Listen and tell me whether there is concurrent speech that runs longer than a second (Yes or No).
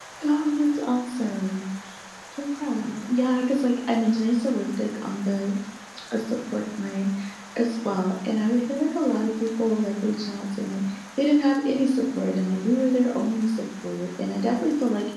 No